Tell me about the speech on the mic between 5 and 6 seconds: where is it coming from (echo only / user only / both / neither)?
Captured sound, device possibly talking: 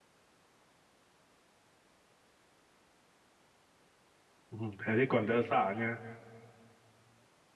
user only